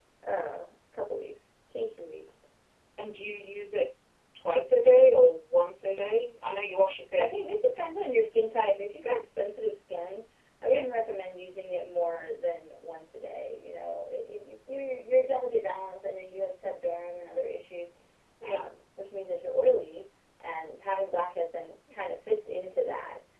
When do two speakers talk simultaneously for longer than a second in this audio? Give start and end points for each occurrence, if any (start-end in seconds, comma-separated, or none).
none